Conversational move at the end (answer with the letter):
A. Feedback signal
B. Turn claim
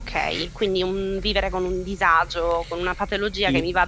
A